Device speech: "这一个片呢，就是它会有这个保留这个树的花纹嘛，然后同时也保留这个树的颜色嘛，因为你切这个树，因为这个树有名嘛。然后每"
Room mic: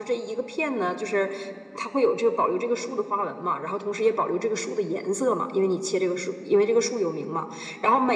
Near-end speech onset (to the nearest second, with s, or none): none